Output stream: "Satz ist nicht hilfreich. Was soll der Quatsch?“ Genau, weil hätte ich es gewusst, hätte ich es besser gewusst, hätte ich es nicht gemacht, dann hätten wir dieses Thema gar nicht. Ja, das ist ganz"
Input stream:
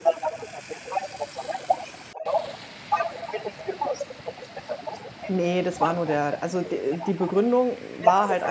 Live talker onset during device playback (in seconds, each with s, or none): 5.3 s